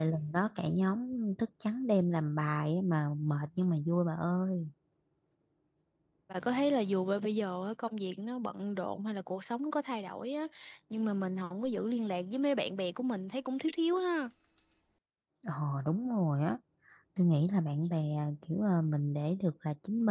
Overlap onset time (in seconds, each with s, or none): none